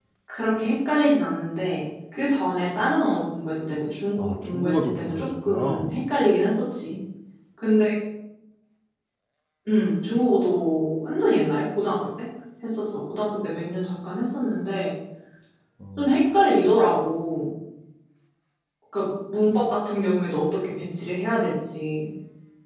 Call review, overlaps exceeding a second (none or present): present